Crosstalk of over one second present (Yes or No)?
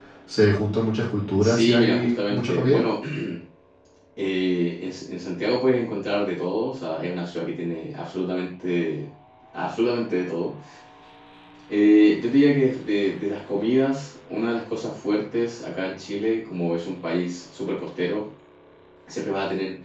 Yes